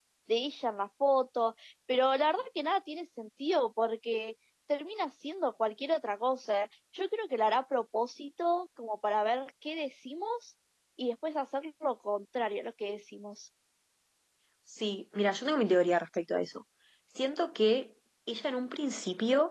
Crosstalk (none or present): none